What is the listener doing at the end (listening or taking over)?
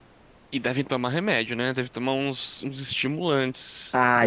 taking over